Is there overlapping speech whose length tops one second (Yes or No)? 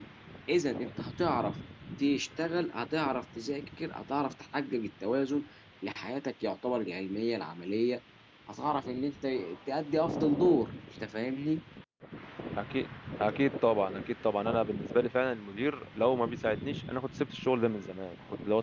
No